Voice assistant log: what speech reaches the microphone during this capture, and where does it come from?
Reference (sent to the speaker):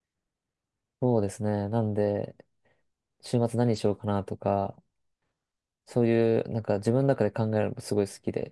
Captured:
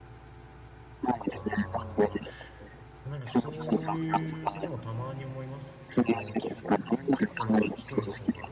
both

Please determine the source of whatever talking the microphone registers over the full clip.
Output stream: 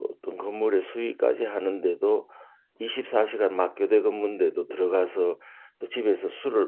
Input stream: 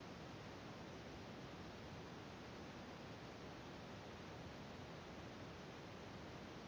neither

